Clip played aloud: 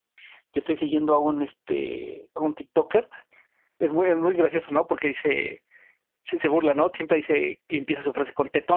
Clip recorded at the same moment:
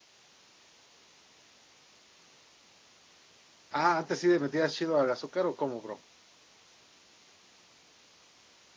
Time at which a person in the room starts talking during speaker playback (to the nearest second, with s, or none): 4 s